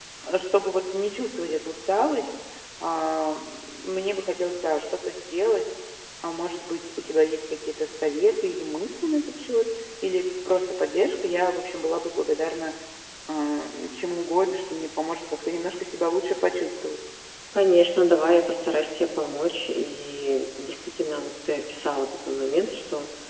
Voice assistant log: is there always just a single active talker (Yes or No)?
Yes